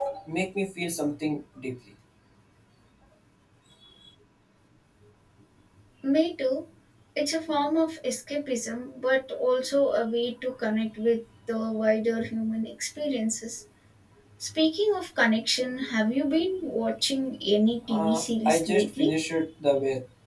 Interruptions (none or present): present